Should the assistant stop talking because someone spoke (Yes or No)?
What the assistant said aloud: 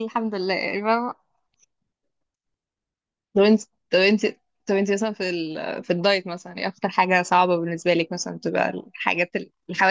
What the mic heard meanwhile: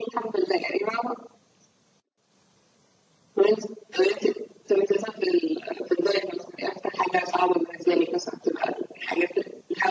No